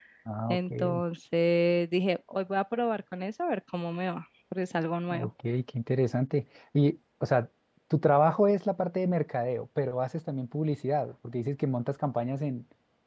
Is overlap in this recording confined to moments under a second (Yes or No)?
Yes